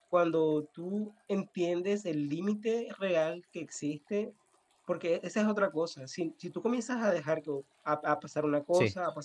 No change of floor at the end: Yes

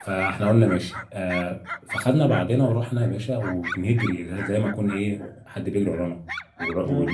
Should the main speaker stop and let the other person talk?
No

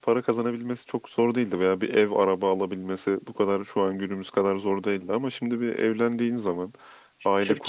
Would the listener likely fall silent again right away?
No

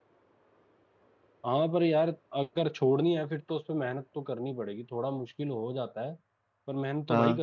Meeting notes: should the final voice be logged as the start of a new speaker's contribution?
No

